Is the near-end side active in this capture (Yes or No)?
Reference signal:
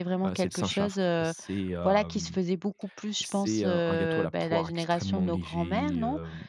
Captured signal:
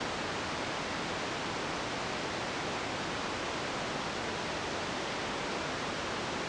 No